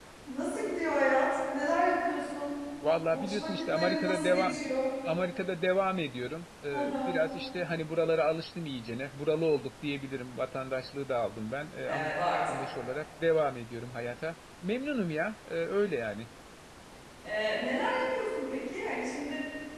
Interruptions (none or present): present